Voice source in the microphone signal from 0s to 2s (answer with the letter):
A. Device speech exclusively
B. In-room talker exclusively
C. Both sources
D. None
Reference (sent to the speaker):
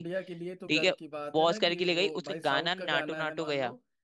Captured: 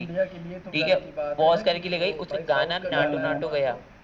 A